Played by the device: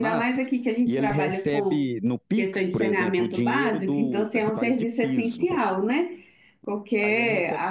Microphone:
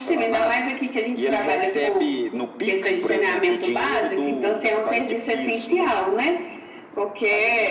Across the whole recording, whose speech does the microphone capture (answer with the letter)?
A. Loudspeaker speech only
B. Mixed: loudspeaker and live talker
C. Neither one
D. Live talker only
A